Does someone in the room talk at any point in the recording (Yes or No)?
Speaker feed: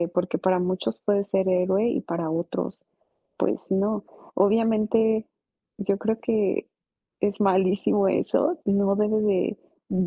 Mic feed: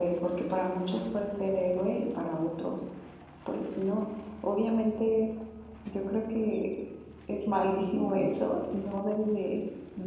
No